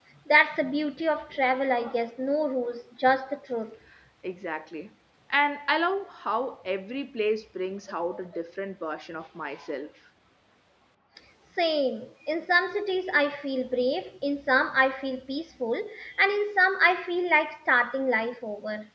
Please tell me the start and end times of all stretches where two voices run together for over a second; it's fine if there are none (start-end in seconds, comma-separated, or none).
none